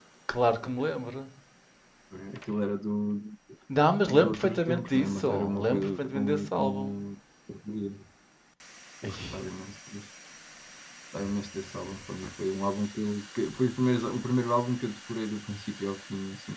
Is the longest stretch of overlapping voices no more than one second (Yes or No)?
No